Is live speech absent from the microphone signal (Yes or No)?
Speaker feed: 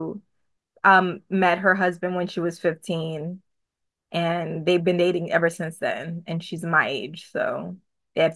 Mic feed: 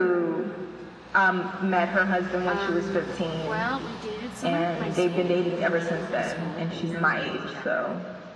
No